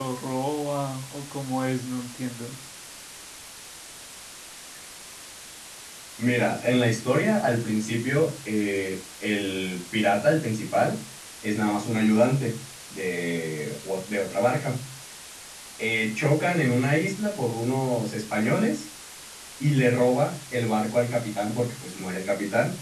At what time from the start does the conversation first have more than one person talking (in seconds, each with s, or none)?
none